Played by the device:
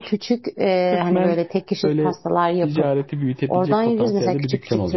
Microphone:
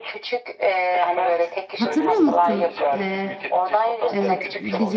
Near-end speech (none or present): present